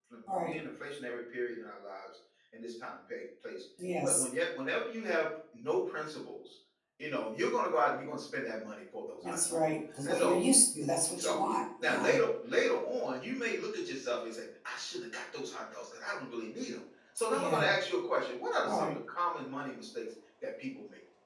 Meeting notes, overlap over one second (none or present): none